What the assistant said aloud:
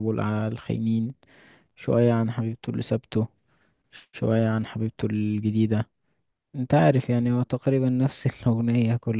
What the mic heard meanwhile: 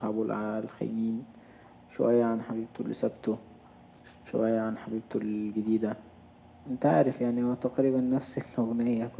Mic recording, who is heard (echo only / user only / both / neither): echo only